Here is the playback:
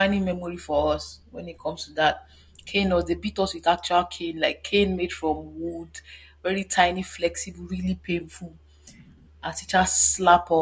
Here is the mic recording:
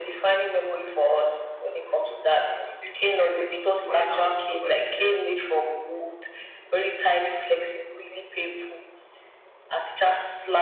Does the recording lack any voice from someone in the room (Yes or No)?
No